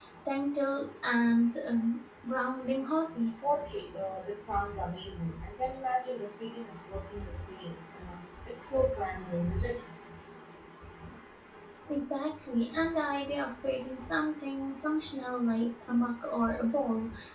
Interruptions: none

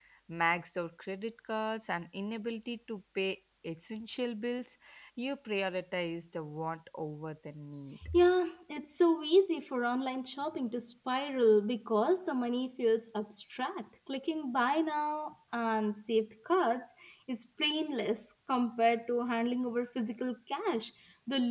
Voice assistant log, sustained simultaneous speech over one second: none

